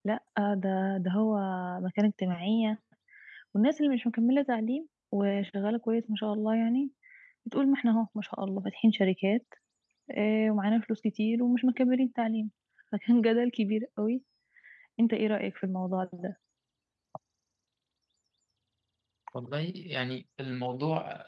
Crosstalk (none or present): none